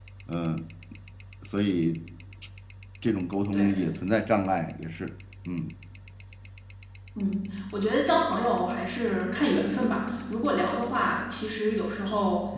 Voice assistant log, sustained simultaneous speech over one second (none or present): none